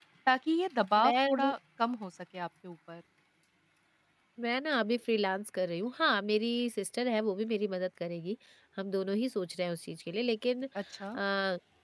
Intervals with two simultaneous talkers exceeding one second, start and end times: none

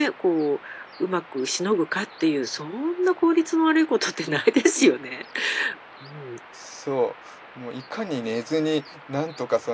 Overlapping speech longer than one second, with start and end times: none

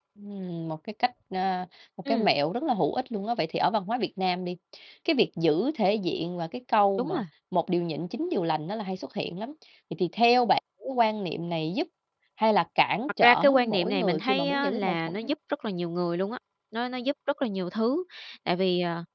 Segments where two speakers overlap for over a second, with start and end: 13.2-15.2

